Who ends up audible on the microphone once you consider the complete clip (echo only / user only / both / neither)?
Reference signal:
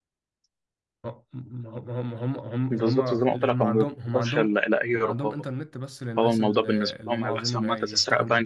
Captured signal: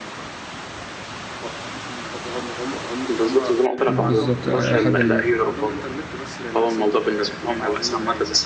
both